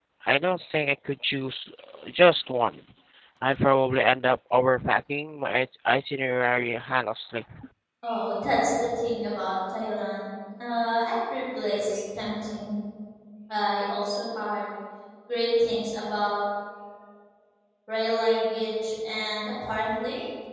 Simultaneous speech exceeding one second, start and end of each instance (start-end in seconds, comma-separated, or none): none